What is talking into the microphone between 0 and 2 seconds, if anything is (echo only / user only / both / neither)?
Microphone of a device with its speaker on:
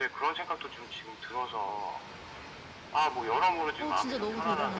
echo only